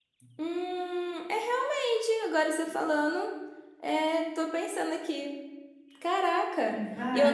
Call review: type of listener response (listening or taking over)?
listening